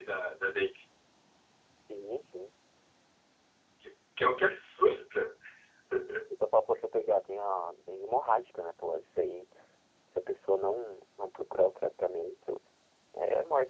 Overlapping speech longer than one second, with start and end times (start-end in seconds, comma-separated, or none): none